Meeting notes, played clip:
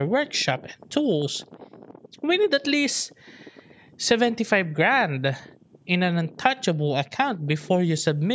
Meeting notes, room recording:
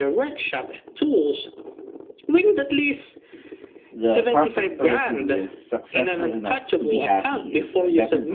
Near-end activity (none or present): present